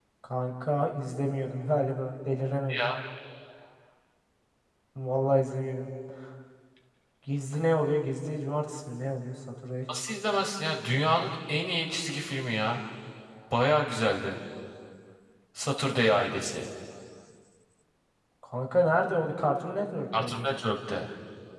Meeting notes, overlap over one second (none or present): none